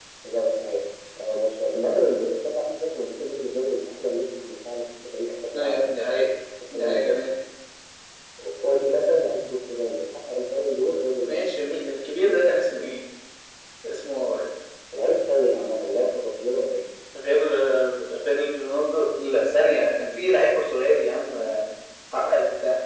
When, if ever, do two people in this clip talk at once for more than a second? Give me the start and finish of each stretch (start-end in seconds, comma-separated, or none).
none